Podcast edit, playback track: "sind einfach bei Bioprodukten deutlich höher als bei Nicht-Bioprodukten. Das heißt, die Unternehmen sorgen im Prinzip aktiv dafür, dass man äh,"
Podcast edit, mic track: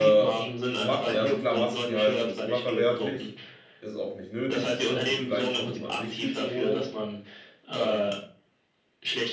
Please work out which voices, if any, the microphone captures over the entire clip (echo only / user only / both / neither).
both